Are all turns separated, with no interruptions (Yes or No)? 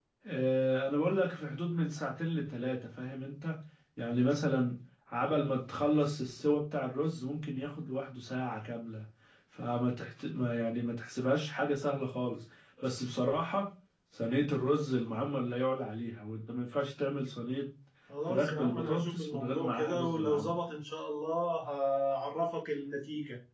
No